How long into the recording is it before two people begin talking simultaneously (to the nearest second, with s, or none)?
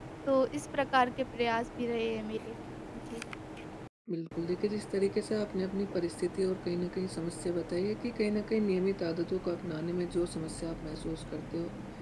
none